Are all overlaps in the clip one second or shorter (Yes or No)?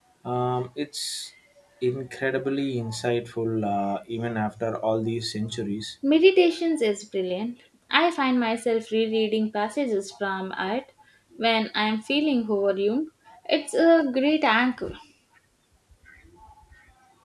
Yes